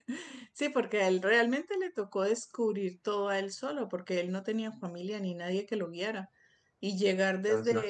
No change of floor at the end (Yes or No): Yes